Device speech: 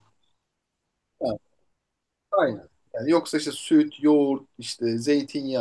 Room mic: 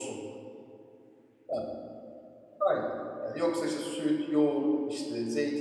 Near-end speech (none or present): none